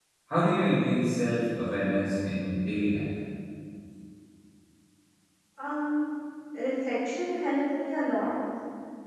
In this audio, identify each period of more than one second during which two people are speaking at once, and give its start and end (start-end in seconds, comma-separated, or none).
none